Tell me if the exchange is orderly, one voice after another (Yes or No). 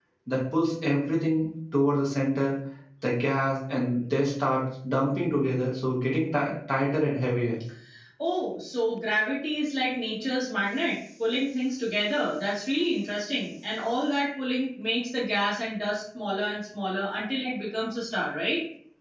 Yes